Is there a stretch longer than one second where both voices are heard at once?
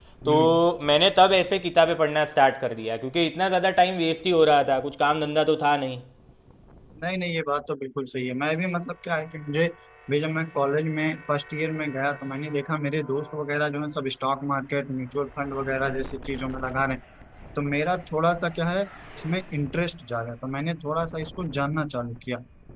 No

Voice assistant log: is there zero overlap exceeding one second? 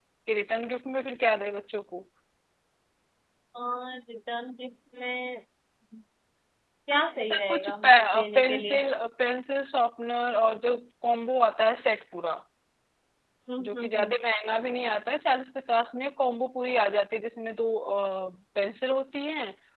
No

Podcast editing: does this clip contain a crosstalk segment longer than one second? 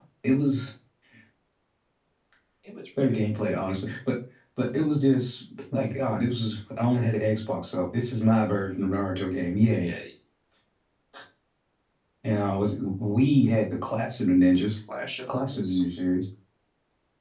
No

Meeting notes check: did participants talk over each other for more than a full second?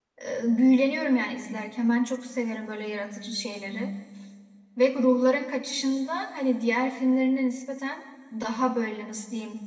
No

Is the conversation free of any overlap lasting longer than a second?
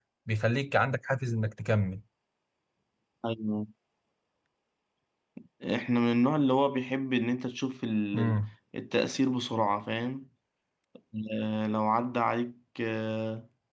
Yes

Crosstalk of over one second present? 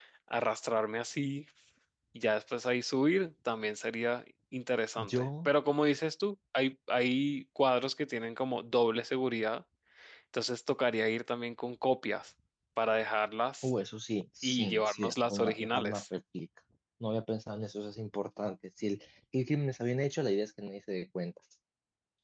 Yes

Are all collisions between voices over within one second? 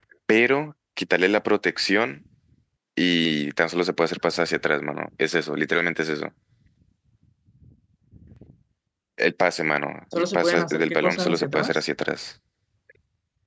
No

